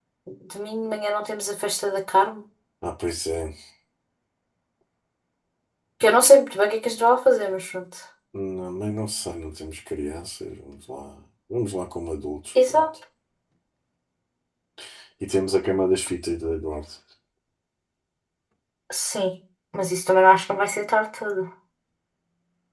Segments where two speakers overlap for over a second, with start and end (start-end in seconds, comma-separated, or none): none